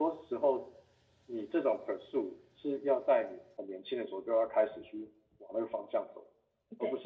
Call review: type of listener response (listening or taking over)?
listening